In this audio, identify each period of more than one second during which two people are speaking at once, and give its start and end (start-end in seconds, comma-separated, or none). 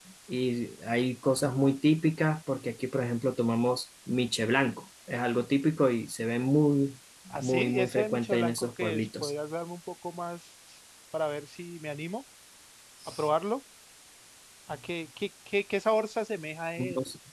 7.3-9.3